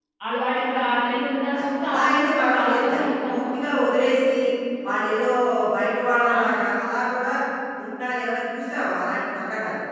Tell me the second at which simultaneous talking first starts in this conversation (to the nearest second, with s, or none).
2 s